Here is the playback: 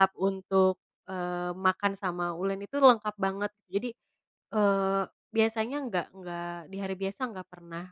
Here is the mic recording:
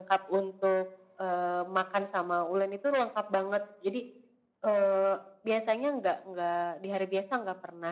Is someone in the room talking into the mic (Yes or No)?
No